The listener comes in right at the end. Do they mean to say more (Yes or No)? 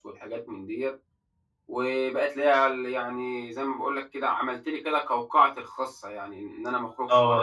Yes